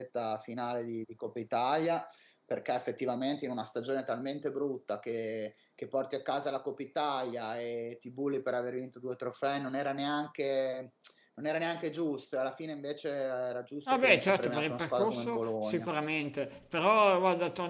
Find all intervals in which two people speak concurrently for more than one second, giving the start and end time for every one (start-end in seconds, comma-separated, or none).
13.9-15.9